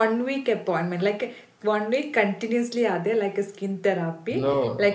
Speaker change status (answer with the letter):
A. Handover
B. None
B